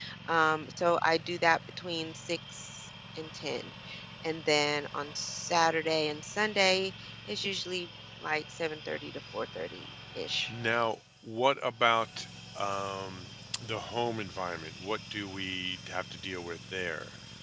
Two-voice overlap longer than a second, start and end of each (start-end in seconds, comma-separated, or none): none